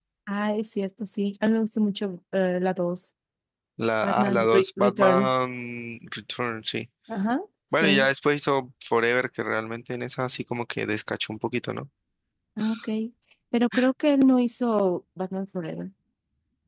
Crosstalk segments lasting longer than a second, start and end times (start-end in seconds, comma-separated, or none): 4.0-5.4